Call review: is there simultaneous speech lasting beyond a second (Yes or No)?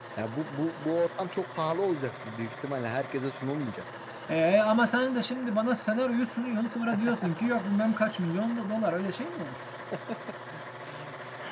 No